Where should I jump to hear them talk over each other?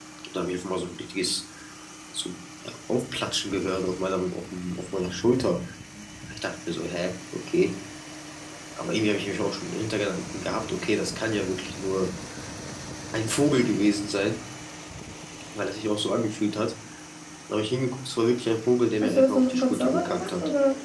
19.0 s

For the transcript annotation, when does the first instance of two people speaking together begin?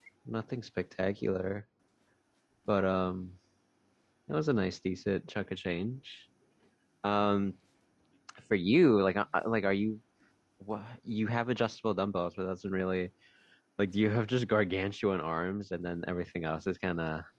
none

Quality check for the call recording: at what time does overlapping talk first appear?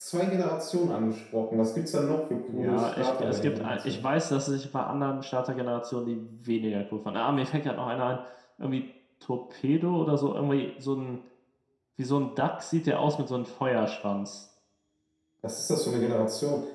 2.5 s

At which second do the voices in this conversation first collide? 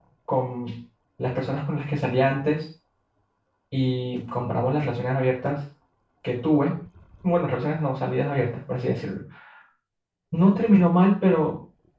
none

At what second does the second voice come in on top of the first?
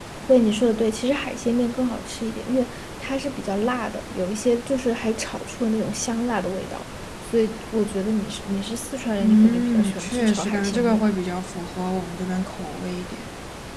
9.2 s

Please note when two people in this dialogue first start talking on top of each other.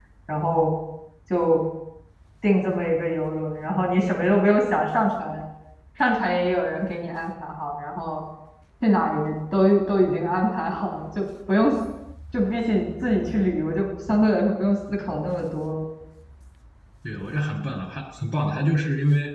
none

